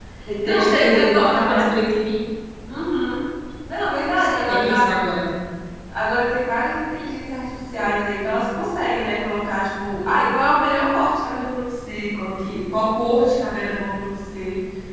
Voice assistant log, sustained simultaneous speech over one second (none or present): present